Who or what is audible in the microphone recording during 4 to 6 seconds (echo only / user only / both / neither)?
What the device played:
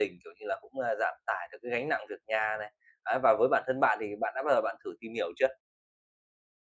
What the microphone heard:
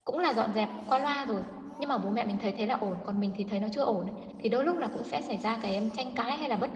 user only